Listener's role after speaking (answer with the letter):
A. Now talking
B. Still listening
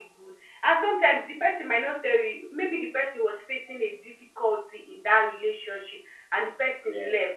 B